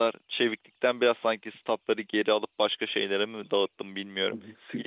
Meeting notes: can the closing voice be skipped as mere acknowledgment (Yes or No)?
No